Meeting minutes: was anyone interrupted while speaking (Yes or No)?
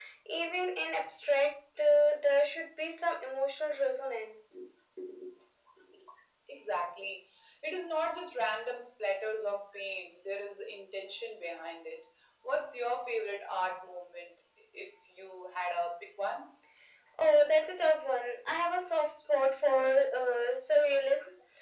No